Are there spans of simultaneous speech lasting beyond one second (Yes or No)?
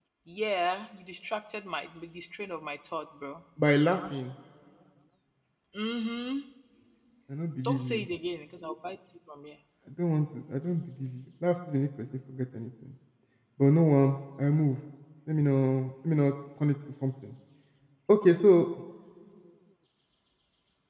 No